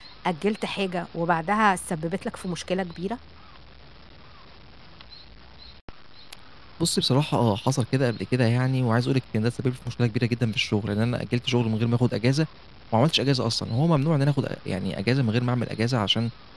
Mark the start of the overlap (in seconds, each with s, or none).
none